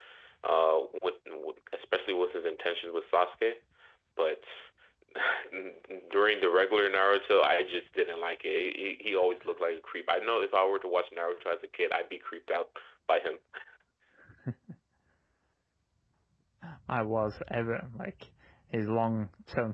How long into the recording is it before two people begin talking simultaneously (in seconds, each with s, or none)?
none